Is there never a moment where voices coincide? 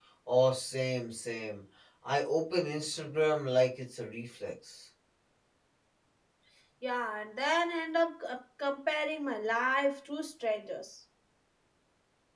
Yes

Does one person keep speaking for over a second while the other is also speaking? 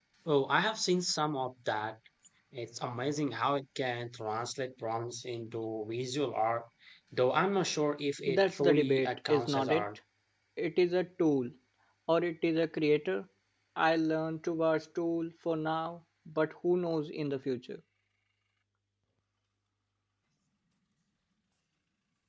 Yes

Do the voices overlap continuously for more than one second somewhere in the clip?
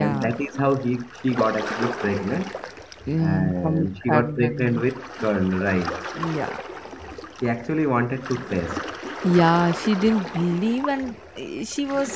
Yes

